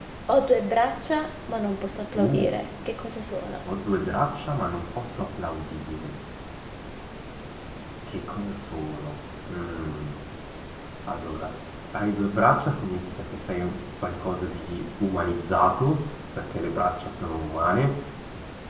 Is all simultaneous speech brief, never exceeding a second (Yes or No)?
Yes